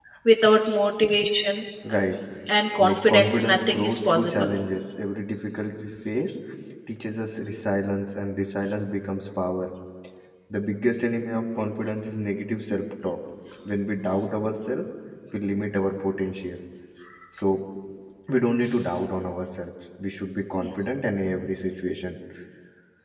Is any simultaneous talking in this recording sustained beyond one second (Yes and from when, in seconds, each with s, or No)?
Yes, from 2.8 s